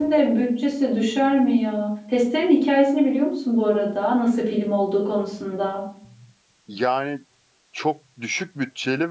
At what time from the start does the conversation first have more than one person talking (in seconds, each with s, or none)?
none